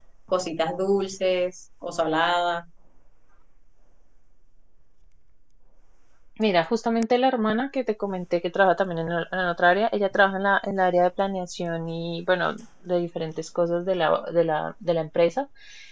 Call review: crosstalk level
none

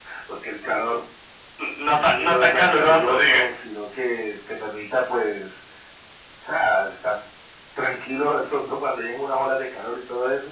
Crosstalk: present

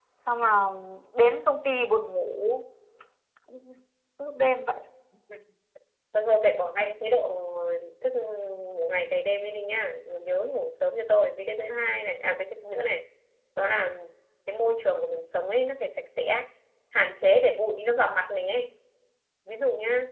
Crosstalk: none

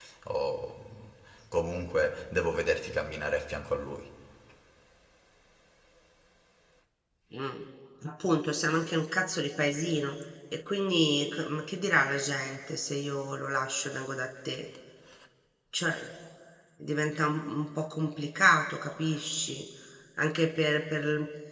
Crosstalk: none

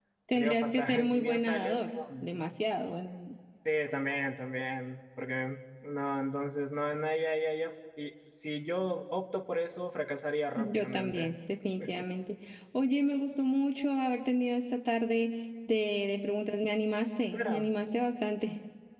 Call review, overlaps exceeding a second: present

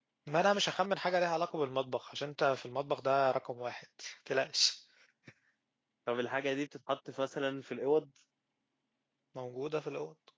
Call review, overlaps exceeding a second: none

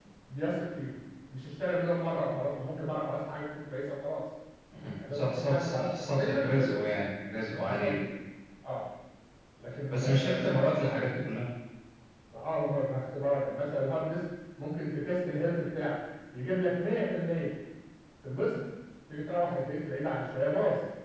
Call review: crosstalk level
present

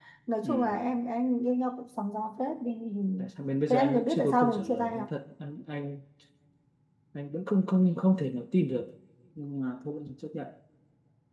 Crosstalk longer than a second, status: present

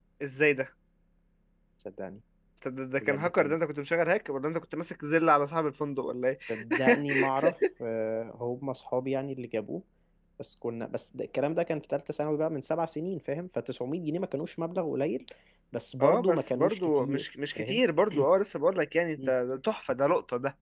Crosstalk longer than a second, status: present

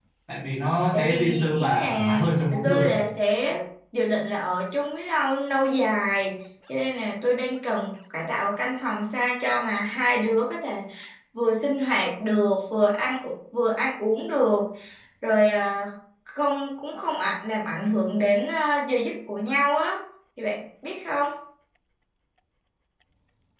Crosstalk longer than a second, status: present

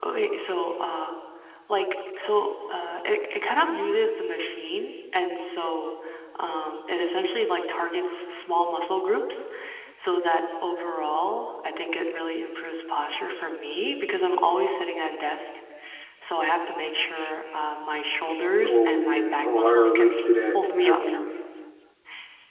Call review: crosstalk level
present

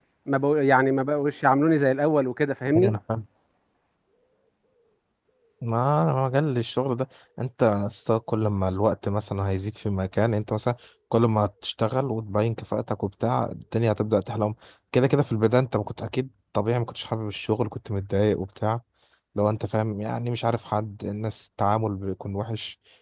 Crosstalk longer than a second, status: none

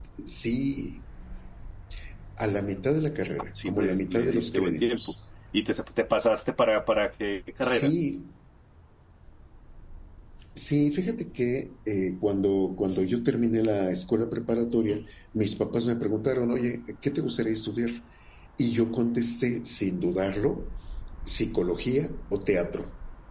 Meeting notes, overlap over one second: present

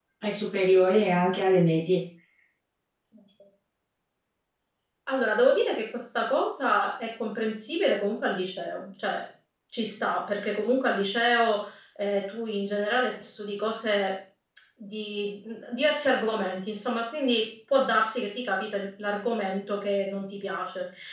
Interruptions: none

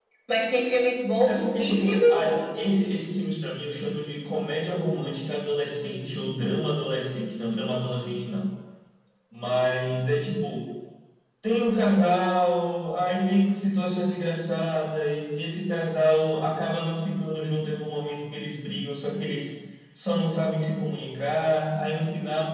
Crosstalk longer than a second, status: present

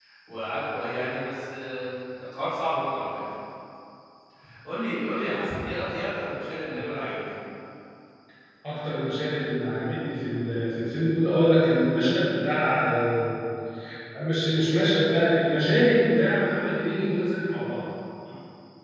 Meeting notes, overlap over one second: none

